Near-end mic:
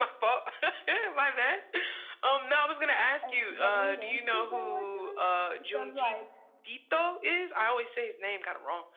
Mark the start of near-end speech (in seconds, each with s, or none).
3.2 s